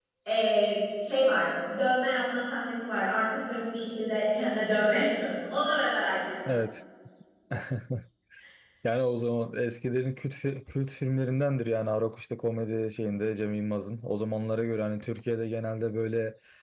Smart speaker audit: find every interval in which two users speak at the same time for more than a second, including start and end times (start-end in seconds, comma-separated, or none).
none